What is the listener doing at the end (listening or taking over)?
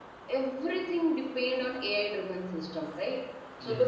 taking over